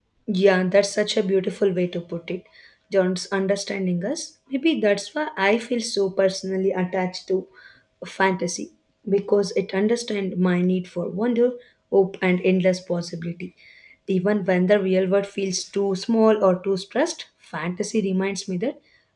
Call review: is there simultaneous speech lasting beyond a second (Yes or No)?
No